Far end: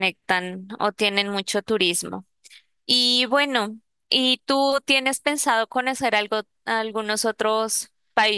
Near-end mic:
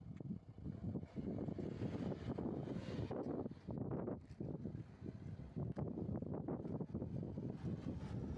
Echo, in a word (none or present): none